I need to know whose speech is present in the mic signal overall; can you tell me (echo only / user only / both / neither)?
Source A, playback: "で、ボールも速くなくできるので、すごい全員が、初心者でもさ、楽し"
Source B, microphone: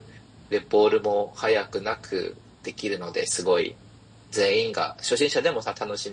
echo only